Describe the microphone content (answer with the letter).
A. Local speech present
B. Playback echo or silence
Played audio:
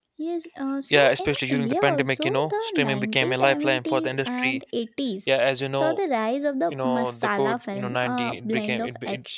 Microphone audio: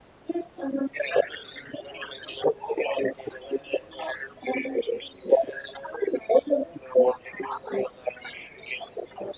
B